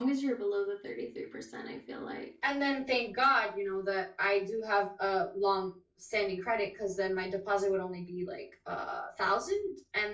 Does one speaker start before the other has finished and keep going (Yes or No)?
No